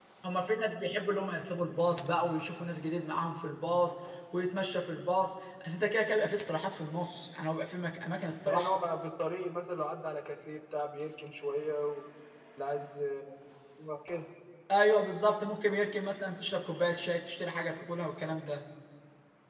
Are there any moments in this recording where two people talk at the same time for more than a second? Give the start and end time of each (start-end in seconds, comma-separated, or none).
none